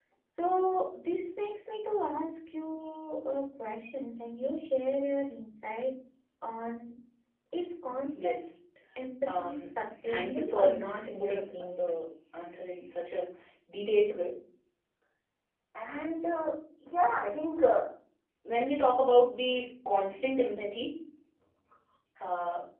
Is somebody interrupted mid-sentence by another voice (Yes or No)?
Yes